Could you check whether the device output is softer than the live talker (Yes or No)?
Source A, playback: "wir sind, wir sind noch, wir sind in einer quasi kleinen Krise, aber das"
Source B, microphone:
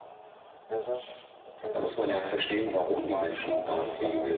Yes